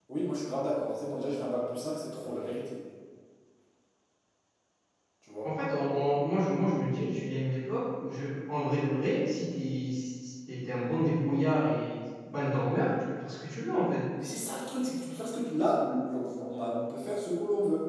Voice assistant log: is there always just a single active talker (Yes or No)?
Yes